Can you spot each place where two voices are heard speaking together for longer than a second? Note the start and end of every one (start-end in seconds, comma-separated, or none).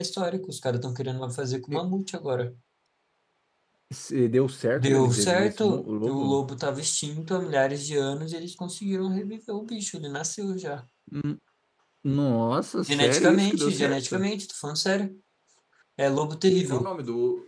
4.8-6.4, 12.9-14.2